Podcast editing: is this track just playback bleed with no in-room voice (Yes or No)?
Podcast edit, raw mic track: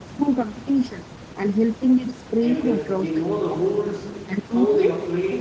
No